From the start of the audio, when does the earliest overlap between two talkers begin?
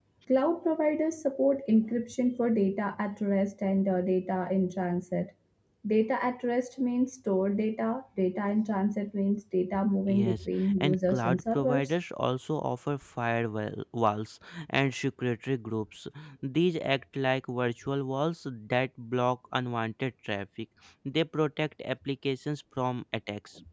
10.1 s

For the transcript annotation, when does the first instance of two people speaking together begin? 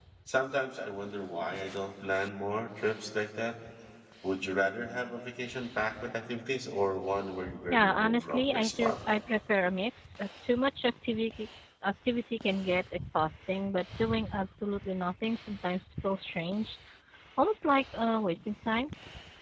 7.7 s

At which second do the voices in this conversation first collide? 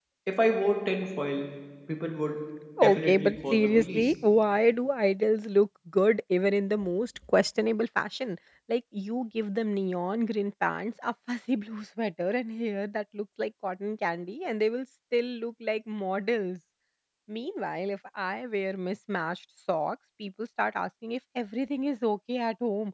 2.8 s

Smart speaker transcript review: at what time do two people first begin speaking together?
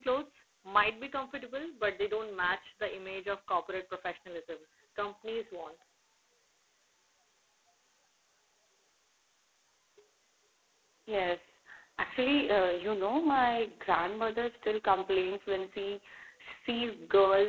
none

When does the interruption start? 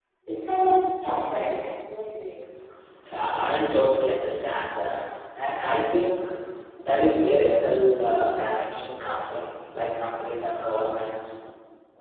none

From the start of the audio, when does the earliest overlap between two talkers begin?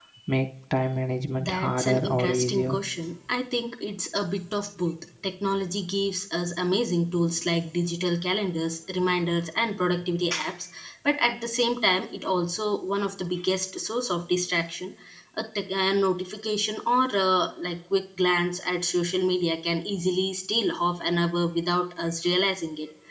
1.4 s

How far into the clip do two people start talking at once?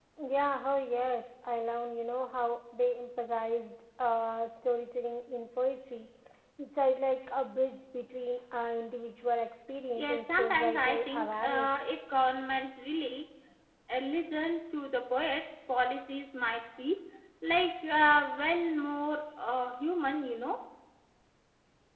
10.0 s

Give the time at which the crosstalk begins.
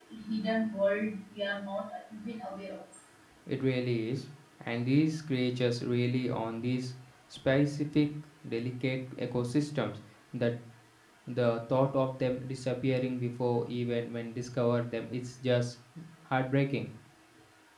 none

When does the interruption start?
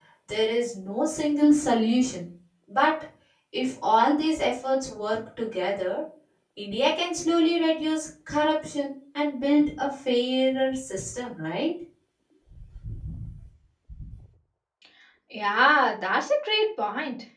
none

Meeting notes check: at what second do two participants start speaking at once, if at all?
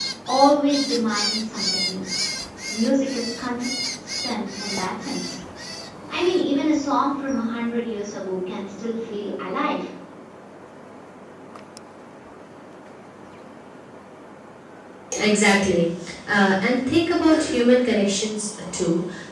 none

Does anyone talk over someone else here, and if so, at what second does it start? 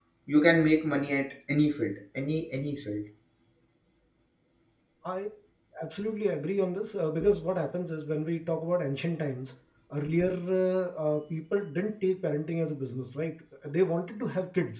none

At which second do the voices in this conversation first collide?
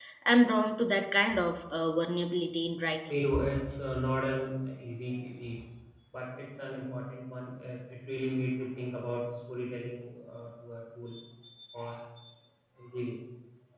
none

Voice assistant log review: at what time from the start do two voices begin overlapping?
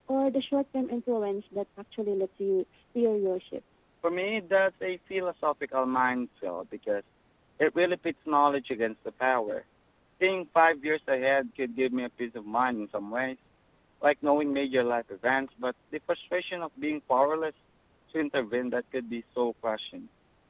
none

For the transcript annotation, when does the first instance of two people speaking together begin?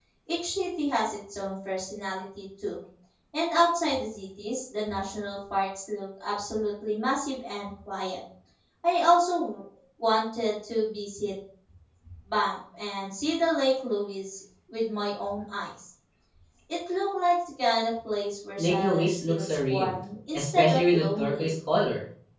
18.6 s

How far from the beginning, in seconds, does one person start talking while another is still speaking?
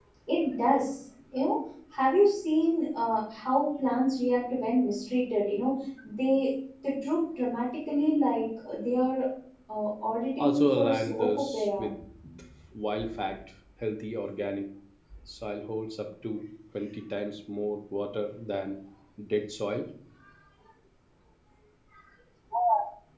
10.4 s

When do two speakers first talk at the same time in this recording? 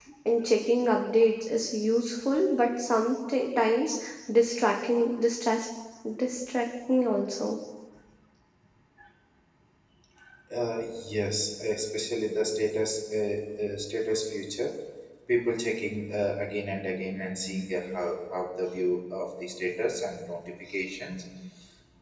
none

